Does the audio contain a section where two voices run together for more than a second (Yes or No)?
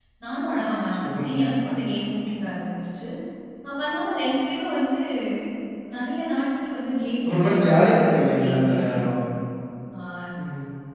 Yes